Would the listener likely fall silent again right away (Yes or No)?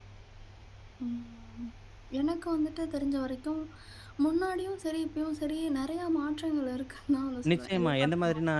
No